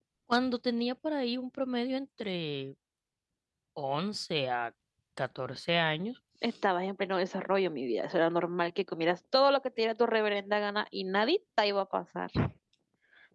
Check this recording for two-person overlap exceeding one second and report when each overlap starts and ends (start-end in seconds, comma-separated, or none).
none